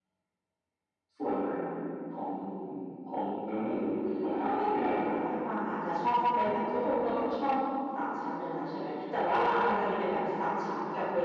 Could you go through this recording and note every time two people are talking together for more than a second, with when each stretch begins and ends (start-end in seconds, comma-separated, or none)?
4.0-5.3